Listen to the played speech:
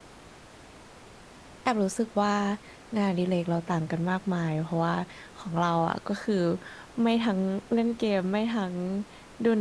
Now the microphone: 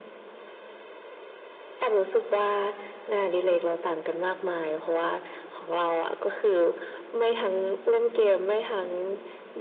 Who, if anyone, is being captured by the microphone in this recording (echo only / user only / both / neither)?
echo only